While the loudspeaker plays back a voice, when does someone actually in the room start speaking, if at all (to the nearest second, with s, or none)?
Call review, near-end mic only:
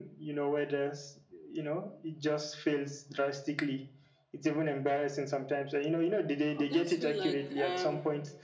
7 s